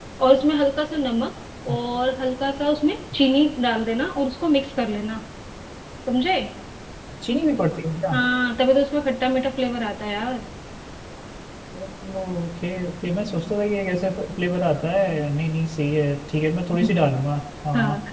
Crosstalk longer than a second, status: none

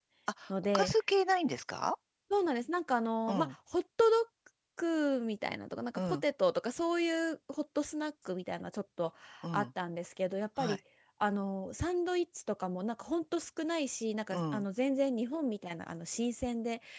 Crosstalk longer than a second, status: none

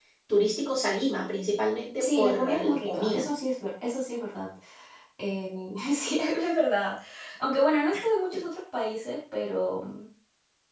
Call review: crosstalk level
present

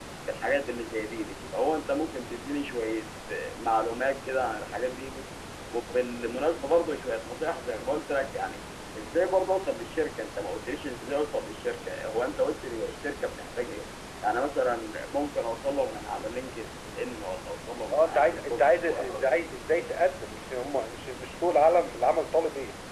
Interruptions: present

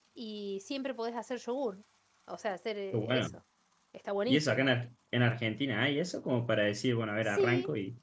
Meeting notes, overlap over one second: none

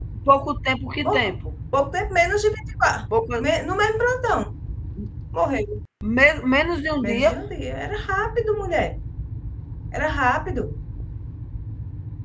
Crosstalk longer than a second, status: none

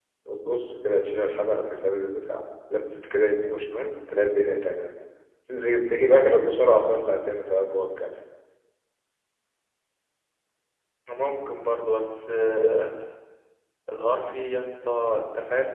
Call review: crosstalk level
none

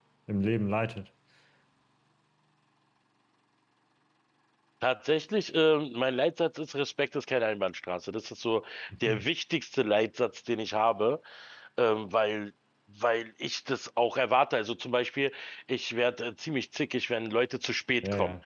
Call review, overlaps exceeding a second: none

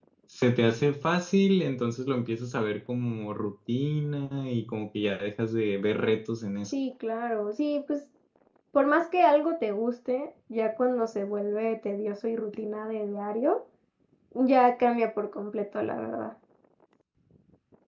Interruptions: none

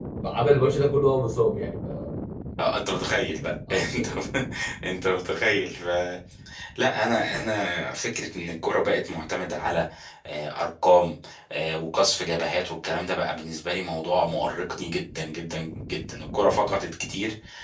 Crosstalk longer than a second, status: none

